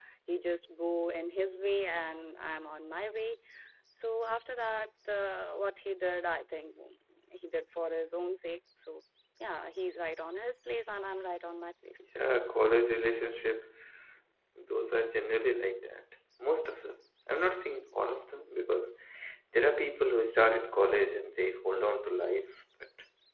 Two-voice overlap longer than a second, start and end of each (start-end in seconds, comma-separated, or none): none